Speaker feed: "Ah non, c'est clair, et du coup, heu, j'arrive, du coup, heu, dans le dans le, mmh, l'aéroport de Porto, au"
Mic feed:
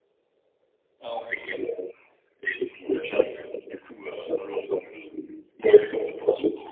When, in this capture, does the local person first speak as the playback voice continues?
none

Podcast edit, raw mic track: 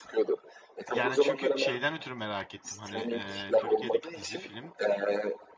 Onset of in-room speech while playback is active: 1 s

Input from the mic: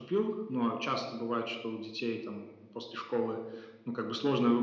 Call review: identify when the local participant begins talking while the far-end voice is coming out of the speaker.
none

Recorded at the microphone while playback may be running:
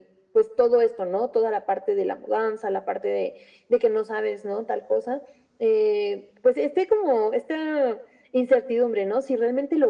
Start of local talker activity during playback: none

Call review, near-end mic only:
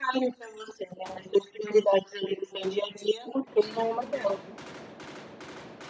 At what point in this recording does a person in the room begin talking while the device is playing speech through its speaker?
none

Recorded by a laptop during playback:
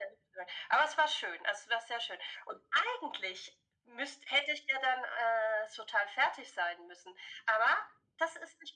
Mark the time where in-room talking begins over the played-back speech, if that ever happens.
none

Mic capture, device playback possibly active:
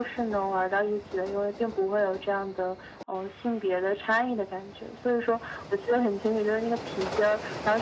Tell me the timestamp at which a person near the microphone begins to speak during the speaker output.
none

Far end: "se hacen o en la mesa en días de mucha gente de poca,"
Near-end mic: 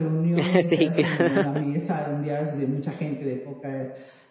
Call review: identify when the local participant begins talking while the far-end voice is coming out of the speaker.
0 s

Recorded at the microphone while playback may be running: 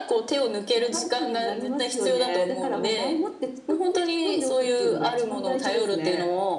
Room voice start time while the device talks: none

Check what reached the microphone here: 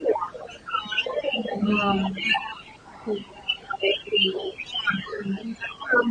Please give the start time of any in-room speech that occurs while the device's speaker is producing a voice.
2 s

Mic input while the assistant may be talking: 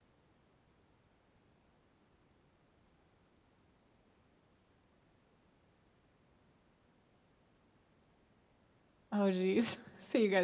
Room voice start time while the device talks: 9 s

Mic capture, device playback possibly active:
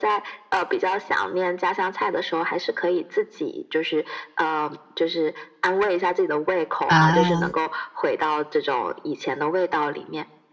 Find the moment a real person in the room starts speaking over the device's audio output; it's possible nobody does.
7 s

